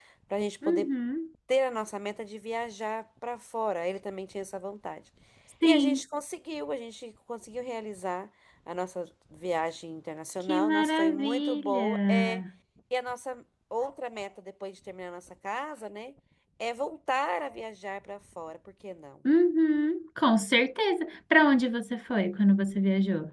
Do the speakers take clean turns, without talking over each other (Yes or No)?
No